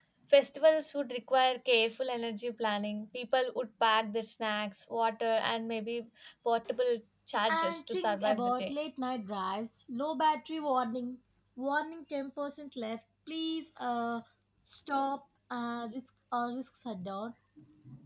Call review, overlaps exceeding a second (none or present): present